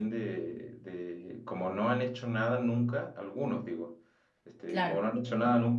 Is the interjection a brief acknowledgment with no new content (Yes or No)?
Yes